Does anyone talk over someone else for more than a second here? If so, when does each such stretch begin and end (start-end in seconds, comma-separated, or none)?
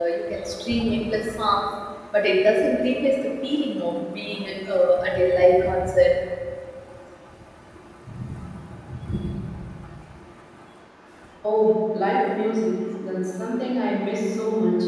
none